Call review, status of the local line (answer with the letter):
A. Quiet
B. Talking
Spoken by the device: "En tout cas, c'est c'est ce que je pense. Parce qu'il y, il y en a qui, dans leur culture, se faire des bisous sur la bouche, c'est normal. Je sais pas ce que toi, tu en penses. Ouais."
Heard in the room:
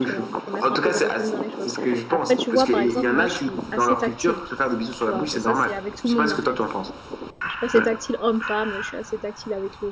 B